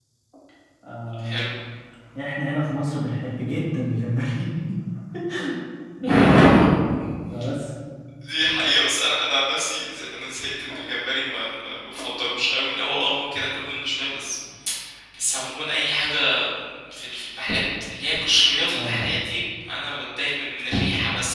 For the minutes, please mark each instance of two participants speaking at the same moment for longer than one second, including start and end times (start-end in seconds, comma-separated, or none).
none